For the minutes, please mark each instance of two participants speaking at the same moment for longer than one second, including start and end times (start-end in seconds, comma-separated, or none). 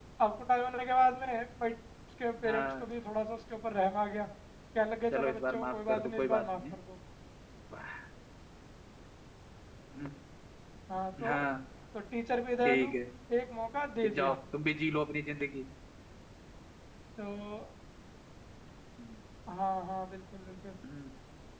5.1-6.8